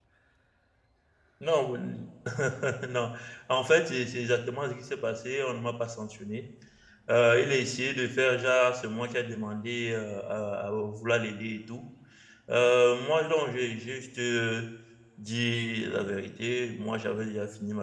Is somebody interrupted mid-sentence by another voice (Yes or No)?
No